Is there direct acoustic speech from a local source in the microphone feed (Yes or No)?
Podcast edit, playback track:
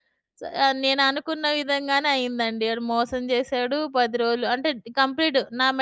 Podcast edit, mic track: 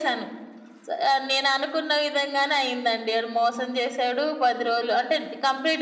No